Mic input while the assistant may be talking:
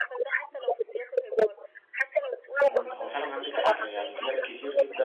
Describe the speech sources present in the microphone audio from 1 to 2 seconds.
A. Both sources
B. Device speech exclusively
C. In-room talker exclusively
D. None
B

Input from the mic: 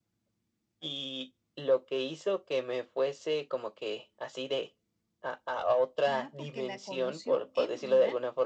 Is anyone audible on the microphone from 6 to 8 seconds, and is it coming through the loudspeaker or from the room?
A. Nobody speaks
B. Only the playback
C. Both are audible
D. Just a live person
C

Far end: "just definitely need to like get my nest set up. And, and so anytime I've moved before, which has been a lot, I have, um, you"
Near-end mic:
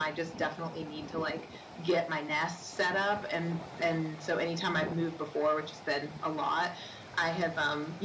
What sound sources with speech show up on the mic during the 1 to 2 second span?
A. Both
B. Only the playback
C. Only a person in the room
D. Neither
B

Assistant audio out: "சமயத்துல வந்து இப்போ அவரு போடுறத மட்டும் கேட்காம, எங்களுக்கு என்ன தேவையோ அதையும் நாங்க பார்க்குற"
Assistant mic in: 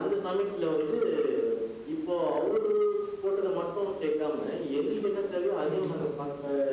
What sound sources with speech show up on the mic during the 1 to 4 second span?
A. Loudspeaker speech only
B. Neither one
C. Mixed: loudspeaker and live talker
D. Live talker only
A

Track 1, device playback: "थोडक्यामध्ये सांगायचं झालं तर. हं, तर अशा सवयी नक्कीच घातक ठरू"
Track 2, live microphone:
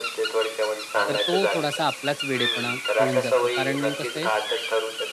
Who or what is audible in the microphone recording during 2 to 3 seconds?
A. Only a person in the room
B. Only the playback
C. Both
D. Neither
C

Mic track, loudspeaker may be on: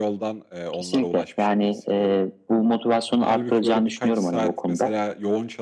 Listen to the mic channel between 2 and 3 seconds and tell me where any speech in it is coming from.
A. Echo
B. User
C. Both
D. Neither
A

